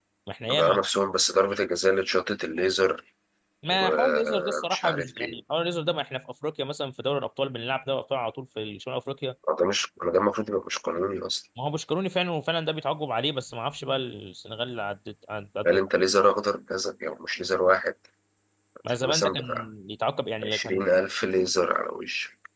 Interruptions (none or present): present